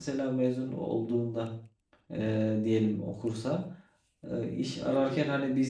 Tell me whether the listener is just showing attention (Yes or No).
Yes